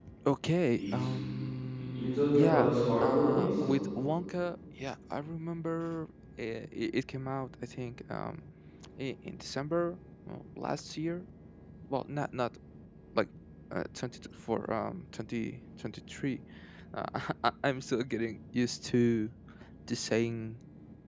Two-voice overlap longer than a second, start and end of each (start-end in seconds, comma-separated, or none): 1.9-3.5